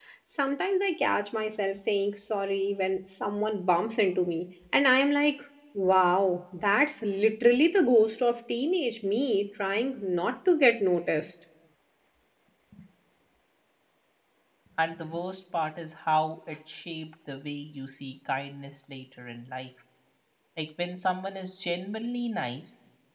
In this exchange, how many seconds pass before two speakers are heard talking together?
none

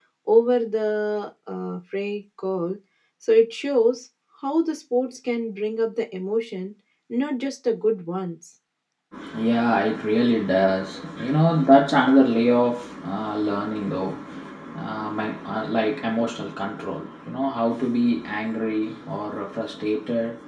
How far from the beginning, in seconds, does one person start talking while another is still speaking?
none

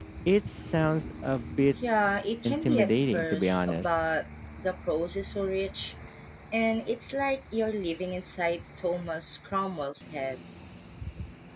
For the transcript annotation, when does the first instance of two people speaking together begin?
2.5 s

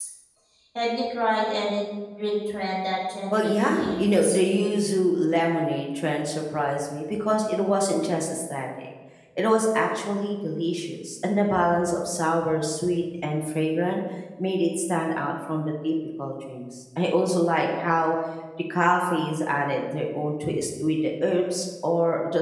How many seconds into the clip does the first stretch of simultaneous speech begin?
3.3 s

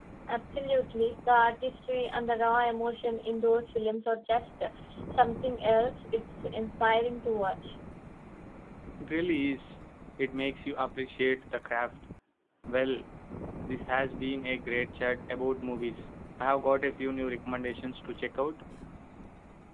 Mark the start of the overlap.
none

